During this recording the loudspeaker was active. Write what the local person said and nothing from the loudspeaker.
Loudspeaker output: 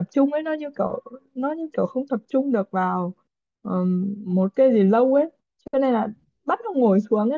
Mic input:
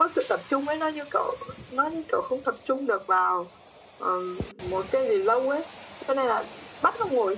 none

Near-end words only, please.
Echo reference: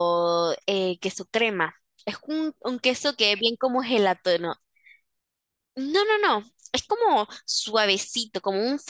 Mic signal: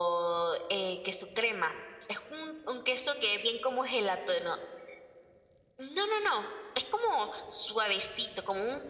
none

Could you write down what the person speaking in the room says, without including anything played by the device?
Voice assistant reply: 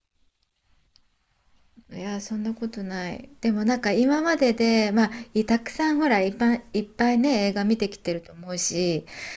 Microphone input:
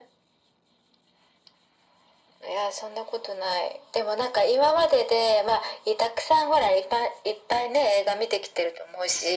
none

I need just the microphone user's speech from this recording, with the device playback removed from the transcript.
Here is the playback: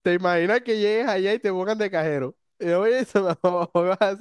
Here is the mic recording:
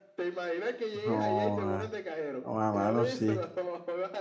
No, ah, no, ah, mano, sí,

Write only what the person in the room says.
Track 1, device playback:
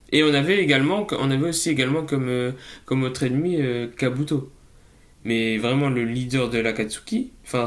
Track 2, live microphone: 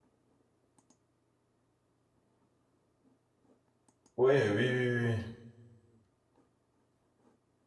Oui, oui, oui, oui.

